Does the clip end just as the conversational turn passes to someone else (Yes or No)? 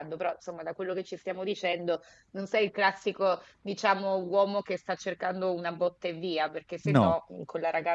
No